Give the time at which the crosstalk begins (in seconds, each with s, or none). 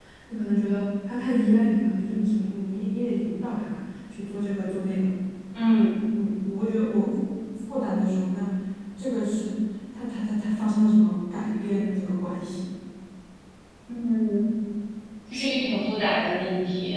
none